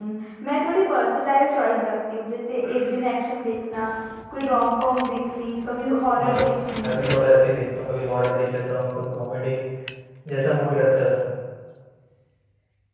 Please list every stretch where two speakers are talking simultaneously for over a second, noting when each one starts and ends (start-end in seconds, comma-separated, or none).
none